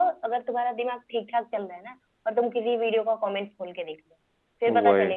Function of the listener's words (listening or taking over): listening